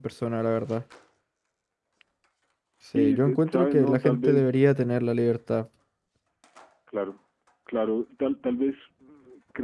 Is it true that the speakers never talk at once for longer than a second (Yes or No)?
No